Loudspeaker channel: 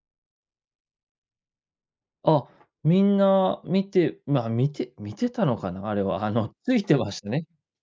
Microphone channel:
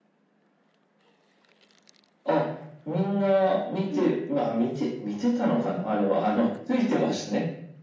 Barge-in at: 3.9 s

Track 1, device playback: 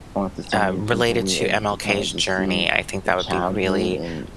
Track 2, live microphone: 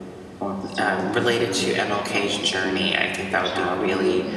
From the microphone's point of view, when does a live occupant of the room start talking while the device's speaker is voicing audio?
none

